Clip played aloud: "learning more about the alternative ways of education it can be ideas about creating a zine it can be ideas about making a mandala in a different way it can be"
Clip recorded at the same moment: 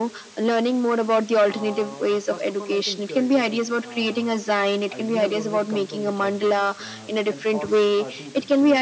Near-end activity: present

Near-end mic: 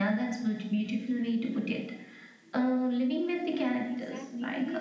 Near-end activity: present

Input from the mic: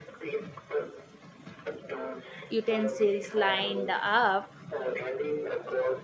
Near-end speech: present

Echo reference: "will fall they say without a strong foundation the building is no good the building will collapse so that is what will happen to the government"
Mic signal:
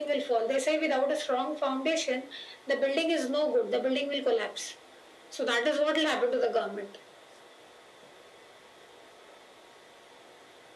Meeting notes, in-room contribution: none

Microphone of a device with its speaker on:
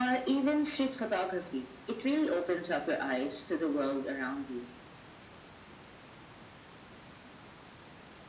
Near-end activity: none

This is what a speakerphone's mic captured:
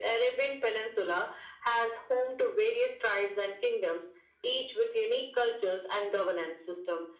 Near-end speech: none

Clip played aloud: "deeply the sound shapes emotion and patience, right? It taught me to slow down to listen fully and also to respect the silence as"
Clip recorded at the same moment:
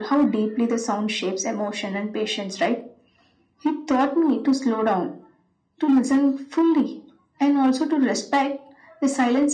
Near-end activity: none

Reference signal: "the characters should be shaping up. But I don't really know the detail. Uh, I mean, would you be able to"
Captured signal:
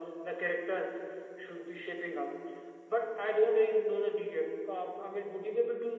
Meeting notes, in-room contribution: none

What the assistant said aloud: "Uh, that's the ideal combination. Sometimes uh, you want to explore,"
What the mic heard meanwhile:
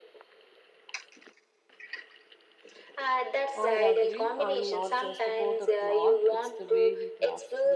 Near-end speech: present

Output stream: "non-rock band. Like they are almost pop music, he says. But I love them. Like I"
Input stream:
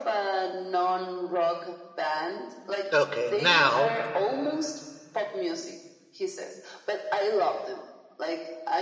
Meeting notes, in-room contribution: present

